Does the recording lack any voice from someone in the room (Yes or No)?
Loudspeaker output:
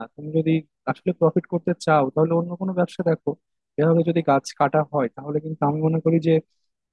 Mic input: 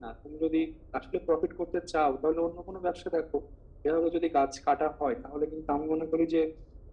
Yes